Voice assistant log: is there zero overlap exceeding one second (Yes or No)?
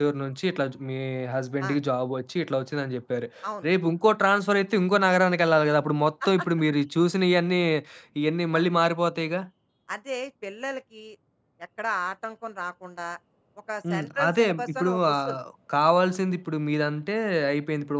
No